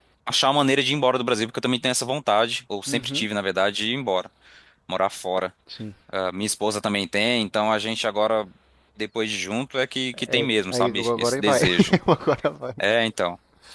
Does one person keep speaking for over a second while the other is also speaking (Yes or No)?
Yes